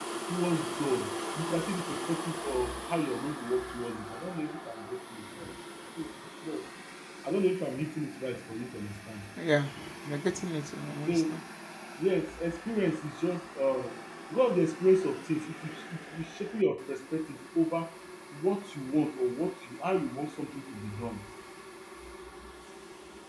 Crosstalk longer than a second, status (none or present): none